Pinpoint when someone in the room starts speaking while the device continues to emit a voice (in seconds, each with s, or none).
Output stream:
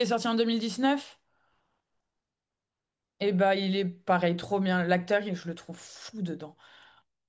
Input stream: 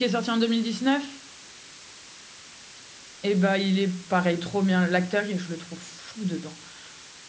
none